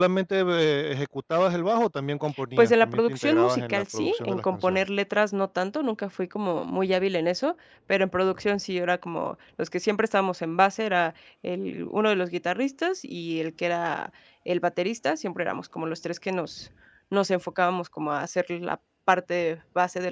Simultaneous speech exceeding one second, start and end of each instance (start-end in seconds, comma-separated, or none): 2.6-4.8